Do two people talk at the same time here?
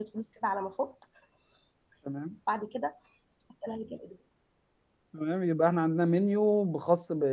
No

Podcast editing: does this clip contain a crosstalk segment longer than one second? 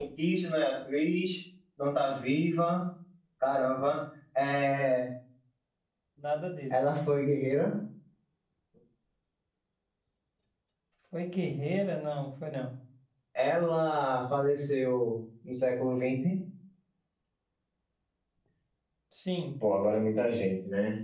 No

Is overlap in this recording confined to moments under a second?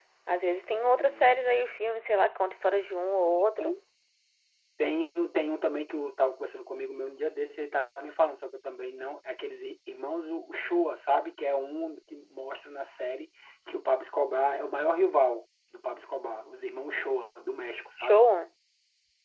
Yes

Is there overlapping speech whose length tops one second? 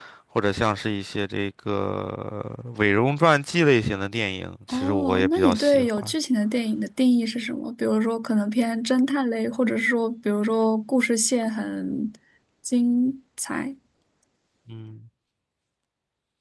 Yes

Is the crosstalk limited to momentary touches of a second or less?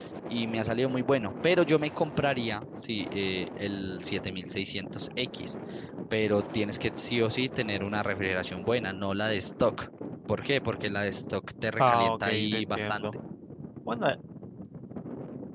No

